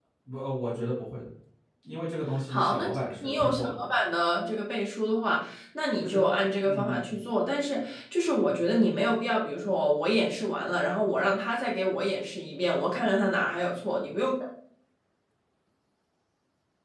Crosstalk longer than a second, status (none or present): present